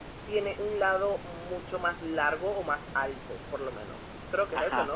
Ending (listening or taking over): taking over